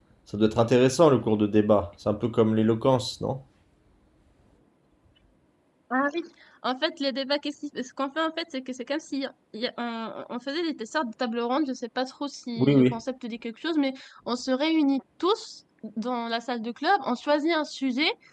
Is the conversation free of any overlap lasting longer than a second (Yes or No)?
Yes